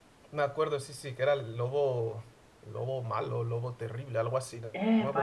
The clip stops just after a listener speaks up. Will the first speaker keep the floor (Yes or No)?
No